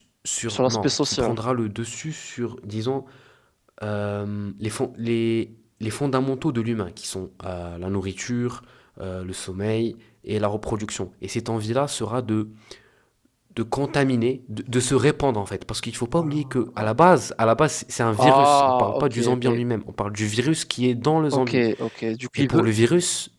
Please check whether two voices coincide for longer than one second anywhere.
Yes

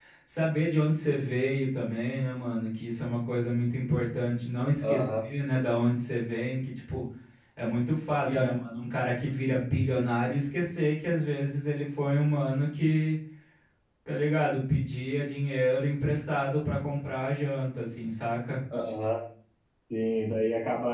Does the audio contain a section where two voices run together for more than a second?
No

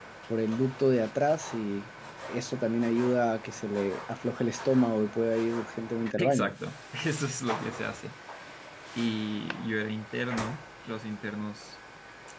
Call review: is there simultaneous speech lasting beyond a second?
No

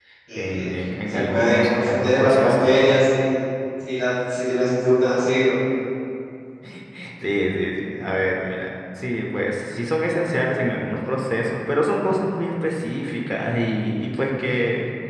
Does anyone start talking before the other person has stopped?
Yes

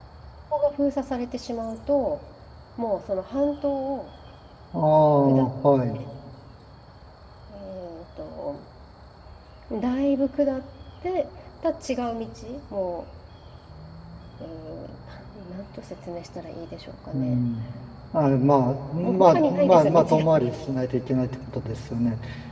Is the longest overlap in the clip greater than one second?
Yes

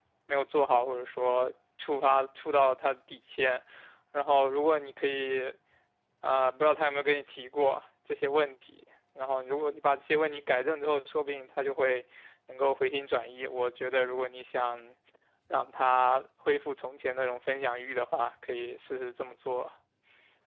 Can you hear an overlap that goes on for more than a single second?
No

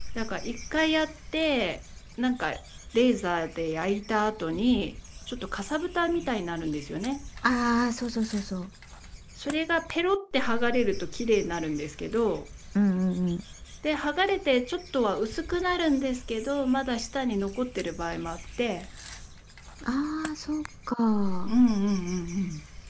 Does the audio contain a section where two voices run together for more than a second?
No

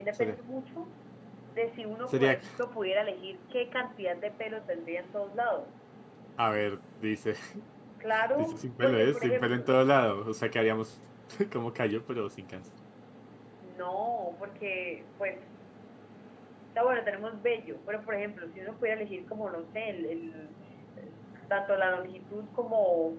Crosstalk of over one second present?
Yes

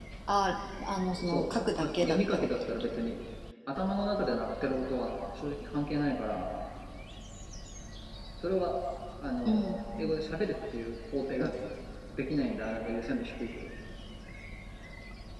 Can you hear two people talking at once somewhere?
Yes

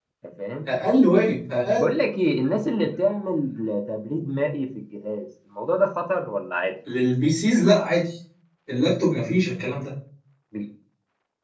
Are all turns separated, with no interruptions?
Yes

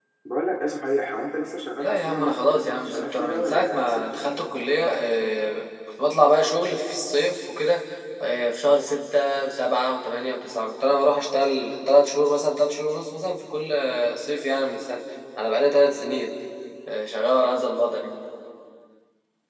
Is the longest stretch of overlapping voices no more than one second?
No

